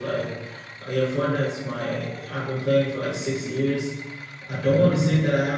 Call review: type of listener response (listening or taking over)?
listening